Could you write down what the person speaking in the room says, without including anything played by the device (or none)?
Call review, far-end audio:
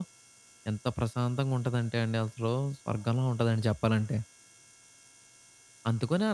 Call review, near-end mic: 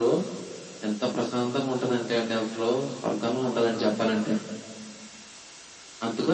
none